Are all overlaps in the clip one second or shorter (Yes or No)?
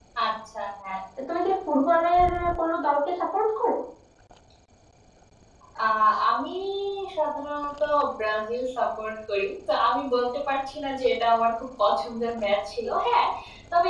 Yes